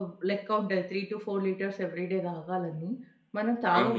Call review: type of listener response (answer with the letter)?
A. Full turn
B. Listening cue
A